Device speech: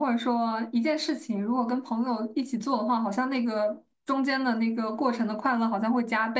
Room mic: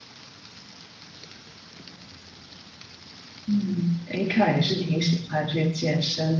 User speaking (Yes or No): Yes